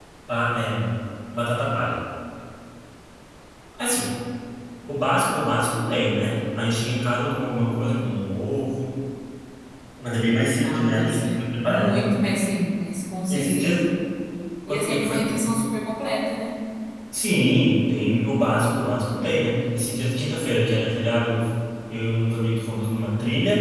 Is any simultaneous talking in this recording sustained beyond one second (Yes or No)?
Yes